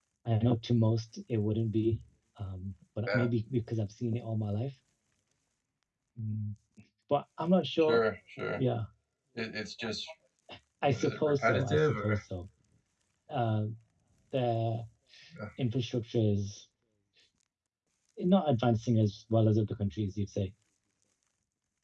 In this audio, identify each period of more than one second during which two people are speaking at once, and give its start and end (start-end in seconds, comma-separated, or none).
10.9-12.2